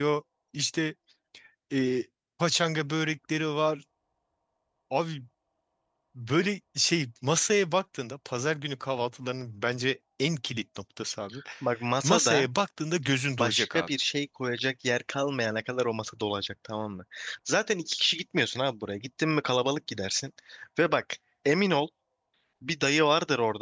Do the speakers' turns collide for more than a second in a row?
No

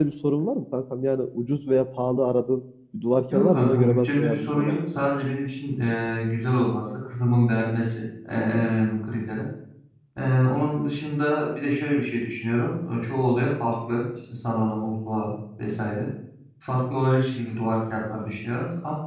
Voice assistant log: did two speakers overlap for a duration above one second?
Yes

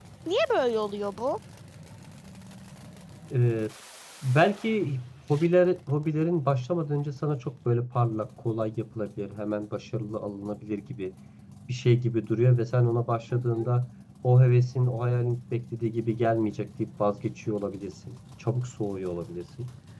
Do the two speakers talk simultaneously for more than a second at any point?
No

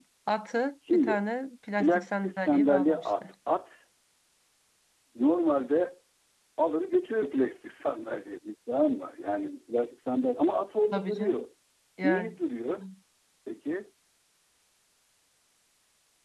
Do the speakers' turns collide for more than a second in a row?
Yes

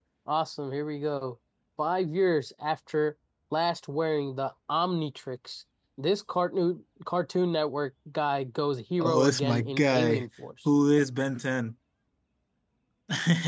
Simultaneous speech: Yes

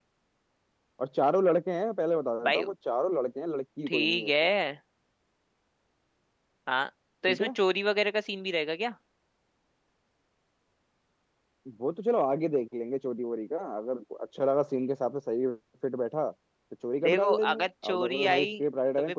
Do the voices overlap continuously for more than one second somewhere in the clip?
Yes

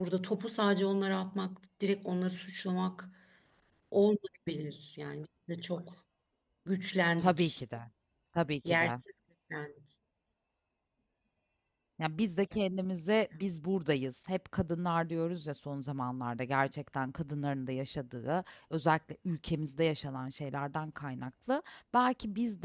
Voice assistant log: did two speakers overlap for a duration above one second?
No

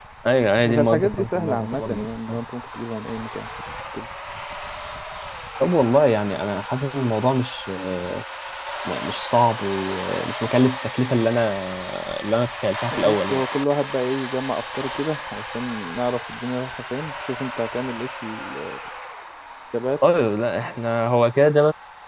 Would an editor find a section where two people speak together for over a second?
Yes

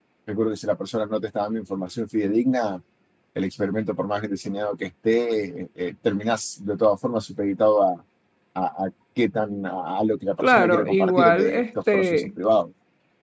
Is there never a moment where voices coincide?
No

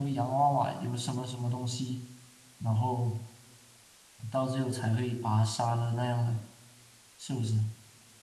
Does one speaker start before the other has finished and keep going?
No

